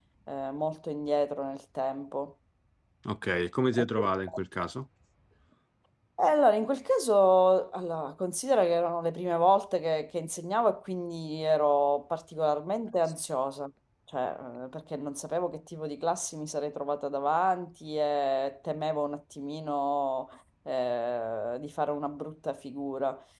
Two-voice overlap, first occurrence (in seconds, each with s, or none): none